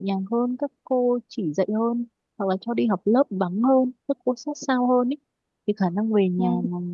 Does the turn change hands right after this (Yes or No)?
No